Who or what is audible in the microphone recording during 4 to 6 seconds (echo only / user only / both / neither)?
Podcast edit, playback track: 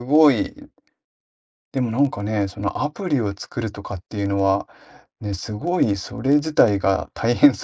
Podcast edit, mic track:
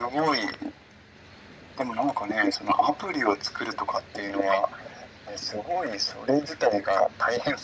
echo only